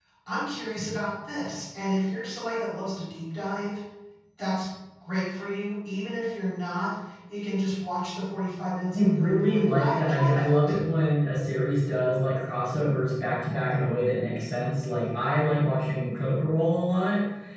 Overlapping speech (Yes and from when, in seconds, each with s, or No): Yes, from 8.9 s